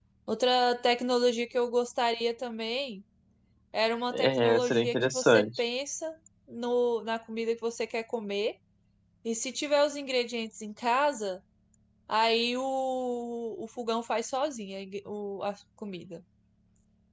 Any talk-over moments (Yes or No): Yes